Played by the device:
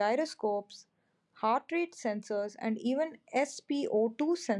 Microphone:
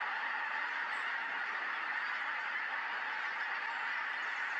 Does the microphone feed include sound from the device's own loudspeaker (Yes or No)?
No